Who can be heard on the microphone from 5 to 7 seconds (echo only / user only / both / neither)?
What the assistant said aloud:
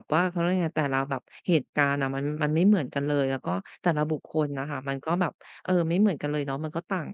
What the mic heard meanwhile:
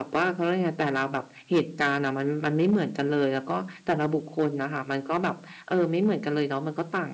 echo only